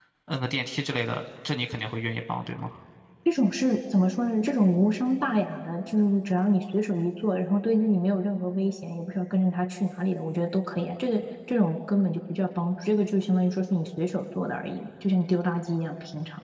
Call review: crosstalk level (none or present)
none